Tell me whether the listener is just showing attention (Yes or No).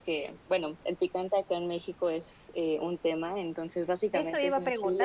No